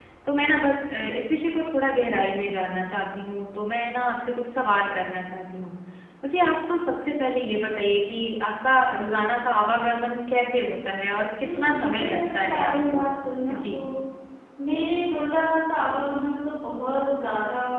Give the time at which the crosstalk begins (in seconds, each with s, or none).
11.4 s